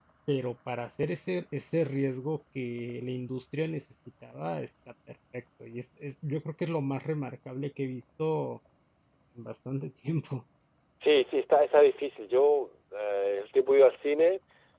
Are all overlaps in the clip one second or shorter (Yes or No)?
Yes